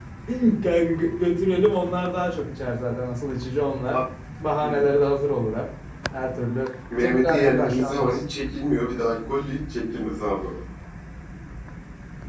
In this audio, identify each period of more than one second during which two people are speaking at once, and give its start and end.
7.0-8.2

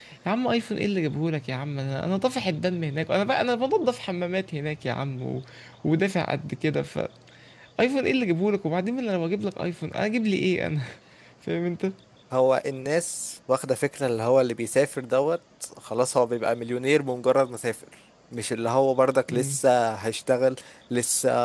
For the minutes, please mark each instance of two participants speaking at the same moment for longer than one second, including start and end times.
none

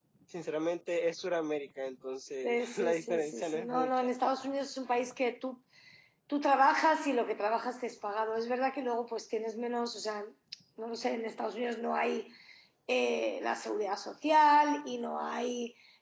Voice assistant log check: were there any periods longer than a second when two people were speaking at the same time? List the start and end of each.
2.4-4.1

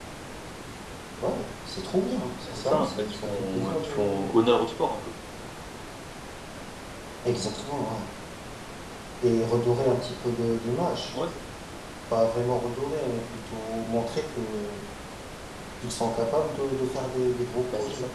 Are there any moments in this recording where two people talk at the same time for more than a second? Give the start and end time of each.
2.4-4.2

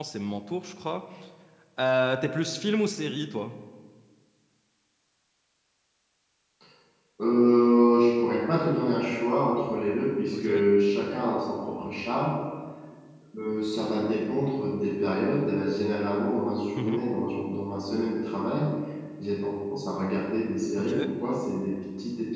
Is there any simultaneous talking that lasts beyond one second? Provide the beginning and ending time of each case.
none

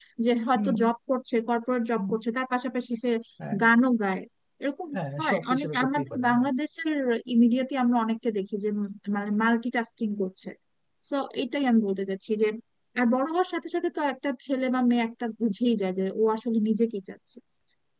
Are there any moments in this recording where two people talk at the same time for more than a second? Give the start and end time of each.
4.9-6.5

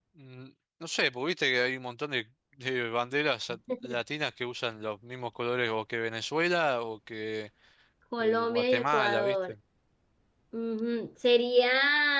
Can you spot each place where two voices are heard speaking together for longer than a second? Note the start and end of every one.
8.2-9.5

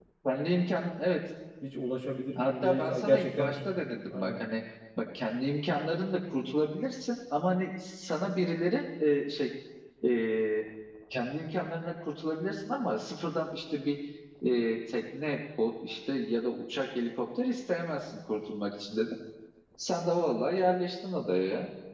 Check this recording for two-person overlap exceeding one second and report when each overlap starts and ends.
2.4-4.4

